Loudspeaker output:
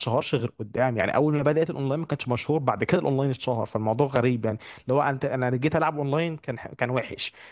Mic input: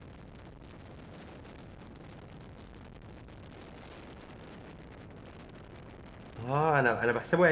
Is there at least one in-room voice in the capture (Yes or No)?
Yes